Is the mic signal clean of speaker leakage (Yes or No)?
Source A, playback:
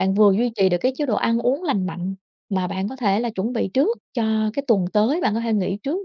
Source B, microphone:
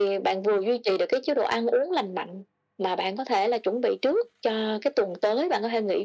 No